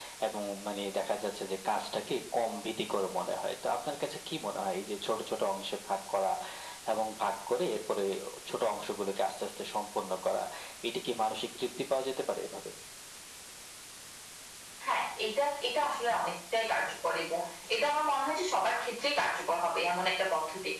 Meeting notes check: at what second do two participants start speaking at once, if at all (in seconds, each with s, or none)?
none